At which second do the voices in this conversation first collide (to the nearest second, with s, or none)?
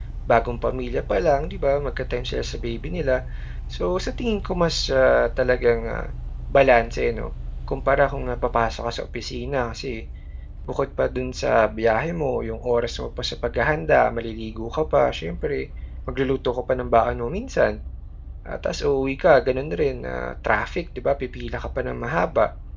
none